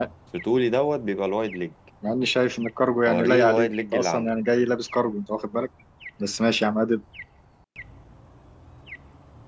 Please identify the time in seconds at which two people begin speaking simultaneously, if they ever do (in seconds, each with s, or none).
3.1 s